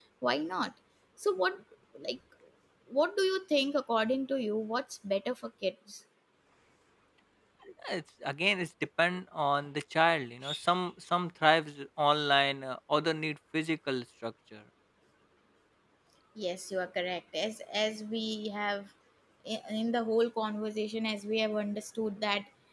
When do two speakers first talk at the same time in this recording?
none

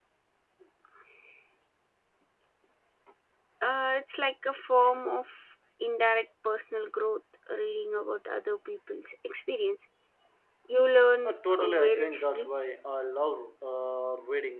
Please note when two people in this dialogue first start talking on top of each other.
11.2 s

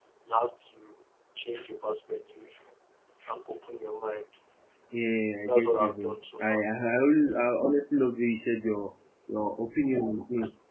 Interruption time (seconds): 5.4 s

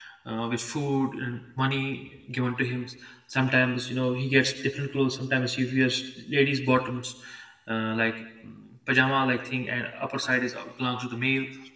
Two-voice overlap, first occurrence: none

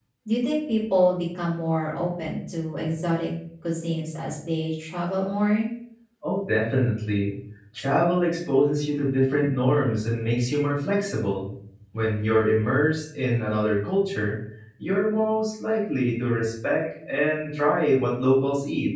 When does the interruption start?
none

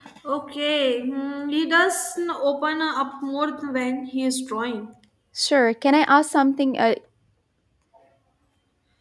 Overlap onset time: none

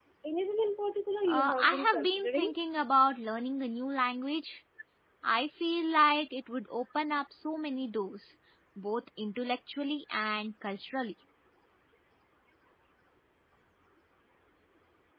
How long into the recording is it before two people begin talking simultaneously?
1.3 s

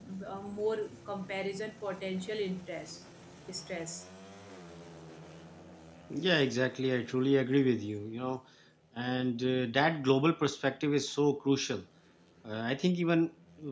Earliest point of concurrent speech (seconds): none

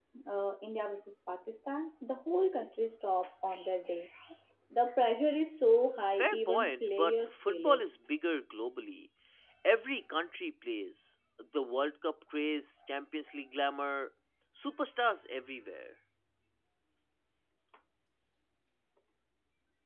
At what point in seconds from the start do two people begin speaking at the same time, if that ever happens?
6.1 s

